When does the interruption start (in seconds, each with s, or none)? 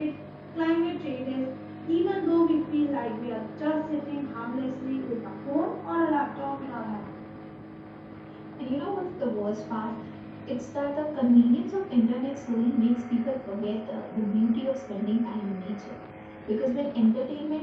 none